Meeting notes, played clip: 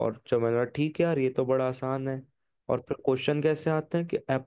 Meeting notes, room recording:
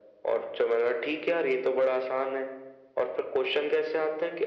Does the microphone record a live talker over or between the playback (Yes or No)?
No